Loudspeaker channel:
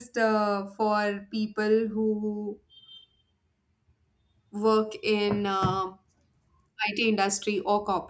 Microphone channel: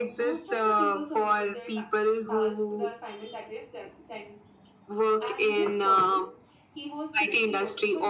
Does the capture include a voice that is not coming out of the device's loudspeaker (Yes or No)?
Yes